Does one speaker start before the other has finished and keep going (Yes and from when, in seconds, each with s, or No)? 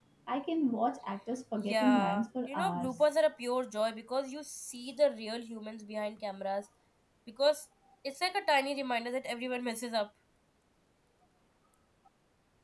Yes, from 1.6 s